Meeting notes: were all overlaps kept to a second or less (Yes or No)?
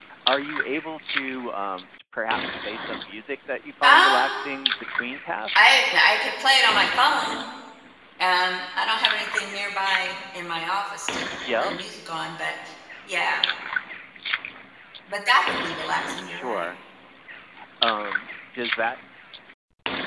Yes